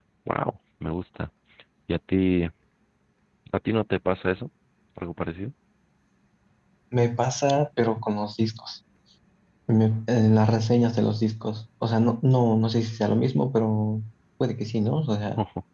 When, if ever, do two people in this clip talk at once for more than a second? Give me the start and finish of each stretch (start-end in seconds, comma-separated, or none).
none